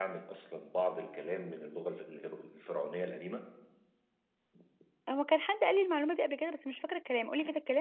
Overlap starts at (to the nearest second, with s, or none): none